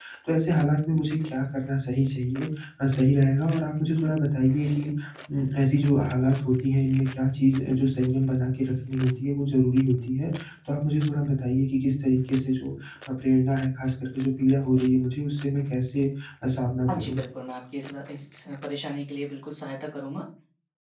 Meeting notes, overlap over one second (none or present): none